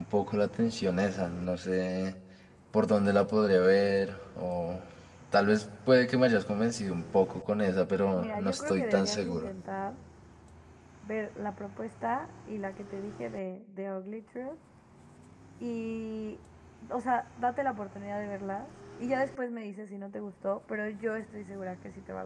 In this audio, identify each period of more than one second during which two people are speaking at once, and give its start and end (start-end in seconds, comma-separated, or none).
8.2-9.5